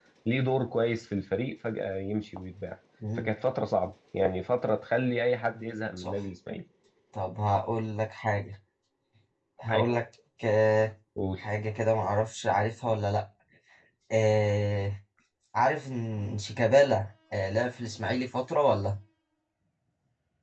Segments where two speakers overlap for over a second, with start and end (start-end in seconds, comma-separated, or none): none